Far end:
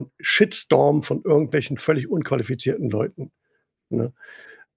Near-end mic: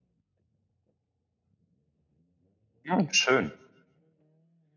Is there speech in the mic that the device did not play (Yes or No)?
Yes